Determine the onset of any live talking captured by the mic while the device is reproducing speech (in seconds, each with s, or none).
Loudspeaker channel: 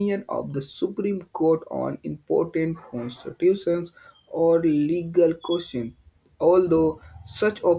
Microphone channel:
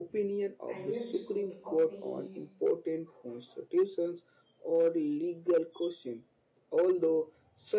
0.7 s